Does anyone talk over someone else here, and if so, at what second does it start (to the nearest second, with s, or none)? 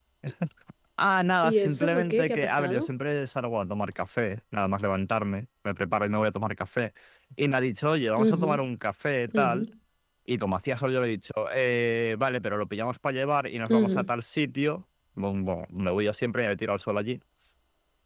1 s